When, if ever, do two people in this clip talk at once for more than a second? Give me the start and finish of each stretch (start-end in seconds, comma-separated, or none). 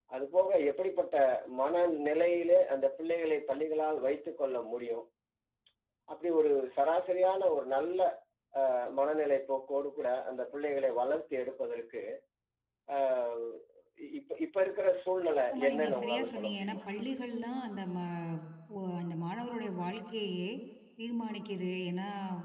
15.5-16.8